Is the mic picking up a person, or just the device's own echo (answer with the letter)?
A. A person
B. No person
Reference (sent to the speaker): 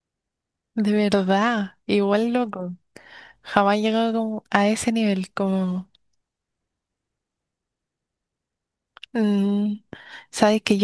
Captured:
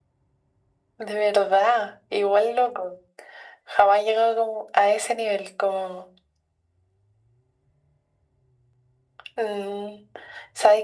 B